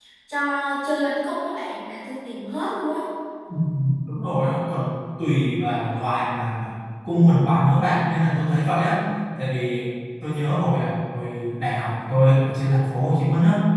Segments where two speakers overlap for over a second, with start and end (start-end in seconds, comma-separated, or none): none